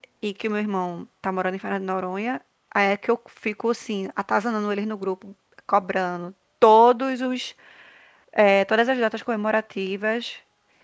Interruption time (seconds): none

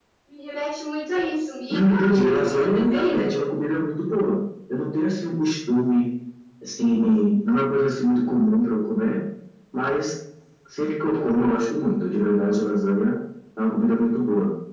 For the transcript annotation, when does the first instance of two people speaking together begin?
2 s

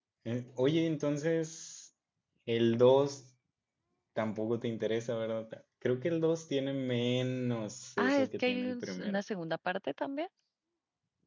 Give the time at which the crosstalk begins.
8 s

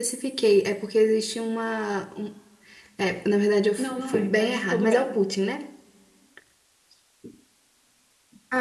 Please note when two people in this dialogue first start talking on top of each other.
4 s

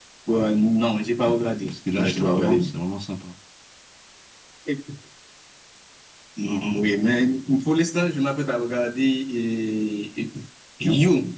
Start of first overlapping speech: 1 s

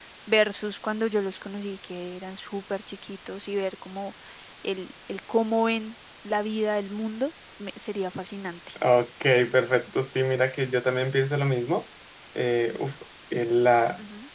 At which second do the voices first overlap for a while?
none

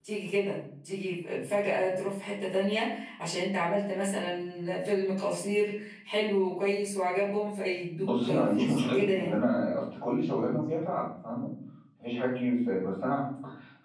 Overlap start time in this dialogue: 8 s

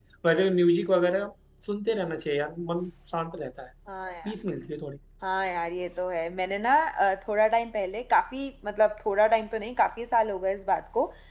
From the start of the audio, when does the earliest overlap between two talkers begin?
none

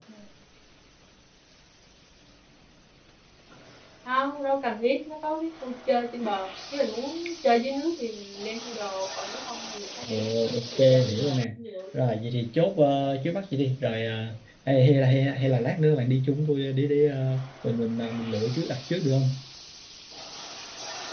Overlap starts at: 10 s

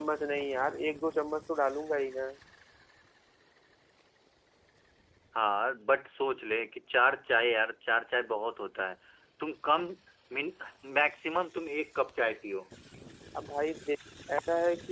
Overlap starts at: none

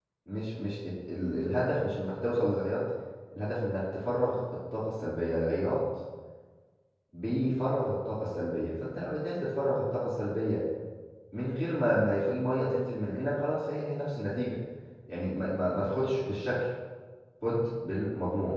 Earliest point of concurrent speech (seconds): none

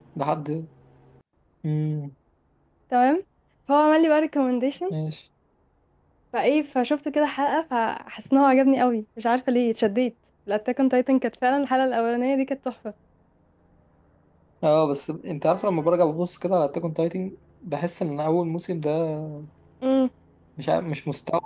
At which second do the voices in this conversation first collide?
none

